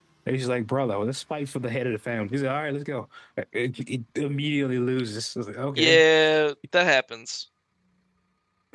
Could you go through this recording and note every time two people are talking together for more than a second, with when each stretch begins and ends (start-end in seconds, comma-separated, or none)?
none